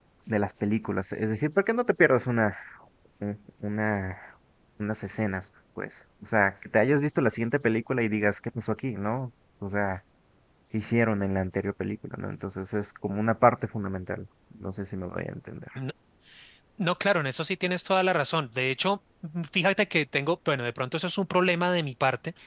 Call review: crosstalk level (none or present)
none